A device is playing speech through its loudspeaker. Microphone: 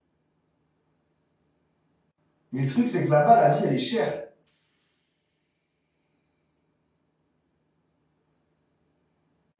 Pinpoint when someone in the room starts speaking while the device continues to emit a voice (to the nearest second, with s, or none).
3 s